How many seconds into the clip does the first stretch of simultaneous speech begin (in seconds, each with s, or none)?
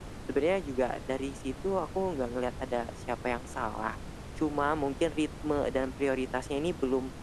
none